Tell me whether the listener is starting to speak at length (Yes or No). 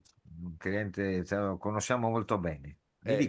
Yes